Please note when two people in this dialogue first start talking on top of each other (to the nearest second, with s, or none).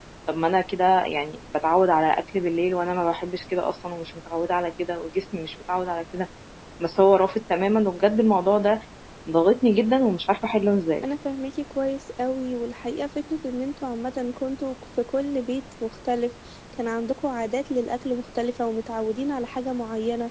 none